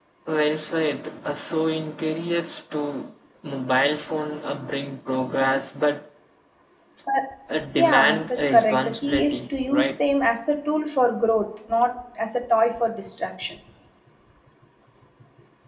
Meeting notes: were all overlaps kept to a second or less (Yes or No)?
No